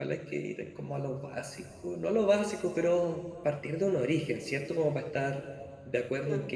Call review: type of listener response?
listening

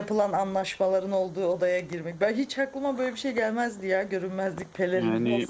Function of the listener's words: taking over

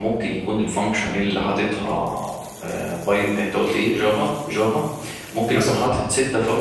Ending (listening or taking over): listening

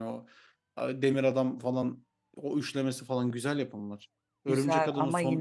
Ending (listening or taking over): taking over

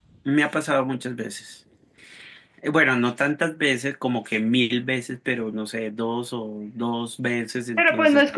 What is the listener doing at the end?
taking over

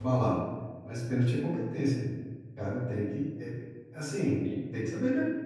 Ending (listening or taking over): listening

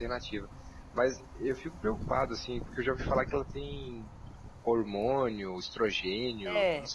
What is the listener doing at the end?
taking over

